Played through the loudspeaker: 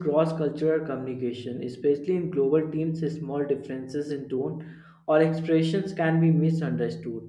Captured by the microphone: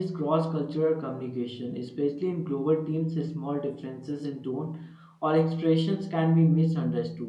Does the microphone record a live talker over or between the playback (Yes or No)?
No